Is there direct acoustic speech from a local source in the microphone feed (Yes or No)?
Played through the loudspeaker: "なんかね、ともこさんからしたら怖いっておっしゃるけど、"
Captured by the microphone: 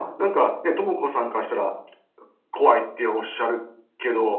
No